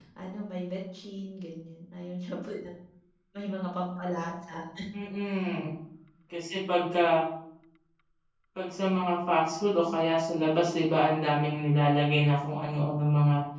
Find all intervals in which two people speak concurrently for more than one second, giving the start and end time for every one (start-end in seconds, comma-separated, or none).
none